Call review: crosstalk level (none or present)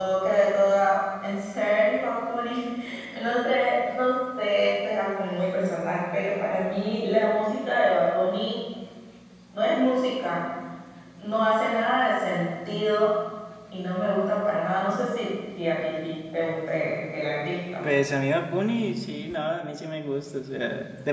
none